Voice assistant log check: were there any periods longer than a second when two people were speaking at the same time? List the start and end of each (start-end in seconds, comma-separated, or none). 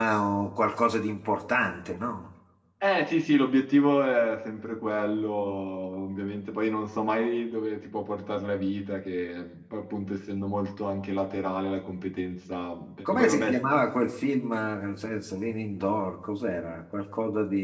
none